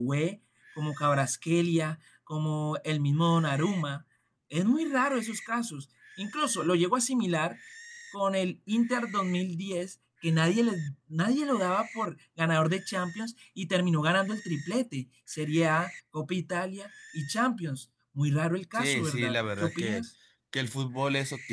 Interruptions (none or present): present